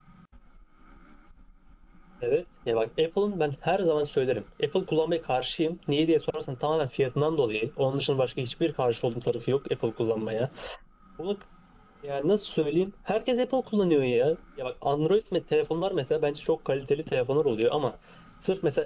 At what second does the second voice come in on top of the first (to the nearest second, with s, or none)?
none